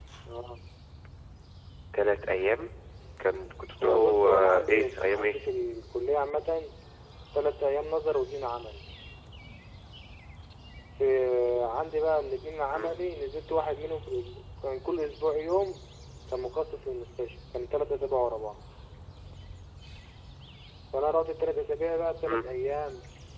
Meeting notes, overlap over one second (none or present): present